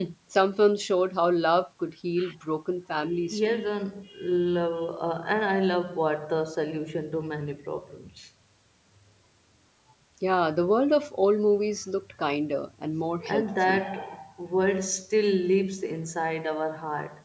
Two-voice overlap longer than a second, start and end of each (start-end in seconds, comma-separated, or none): none